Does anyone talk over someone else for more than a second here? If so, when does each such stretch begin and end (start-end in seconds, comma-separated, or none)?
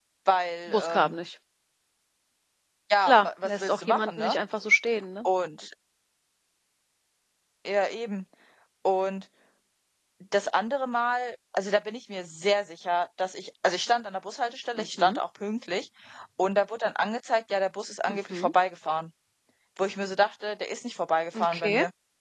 3.0-4.4